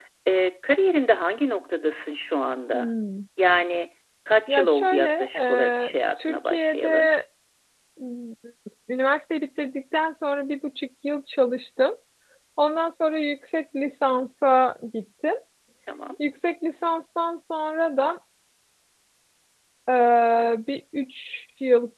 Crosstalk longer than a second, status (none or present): present